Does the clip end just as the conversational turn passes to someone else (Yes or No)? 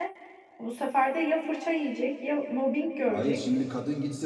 Yes